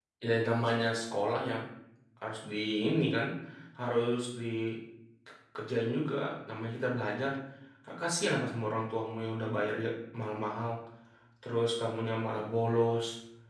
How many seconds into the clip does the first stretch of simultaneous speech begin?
none

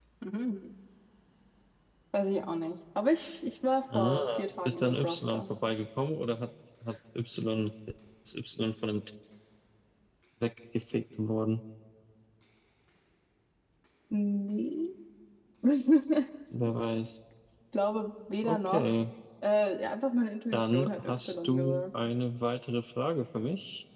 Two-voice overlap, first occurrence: 3.9 s

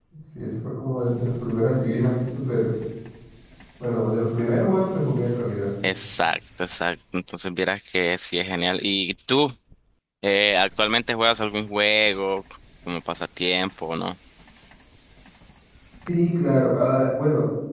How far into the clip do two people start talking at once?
none

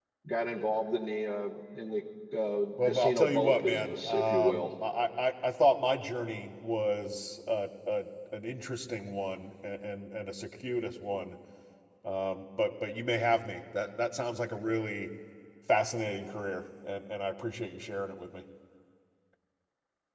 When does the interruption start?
2.8 s

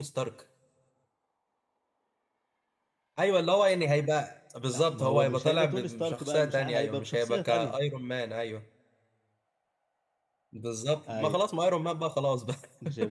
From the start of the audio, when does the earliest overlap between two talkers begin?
4.8 s

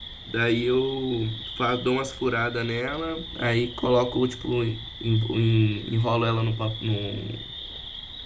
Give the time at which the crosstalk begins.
none

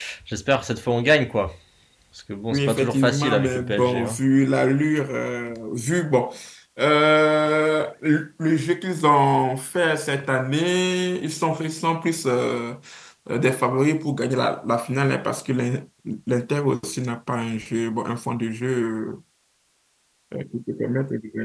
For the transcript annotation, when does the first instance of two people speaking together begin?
2.5 s

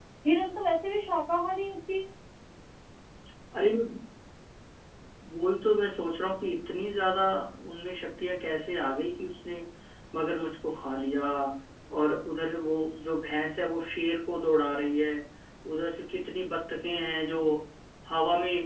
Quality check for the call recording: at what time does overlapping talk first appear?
none

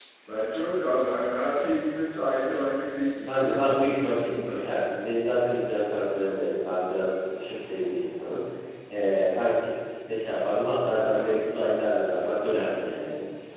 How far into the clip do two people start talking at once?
3.3 s

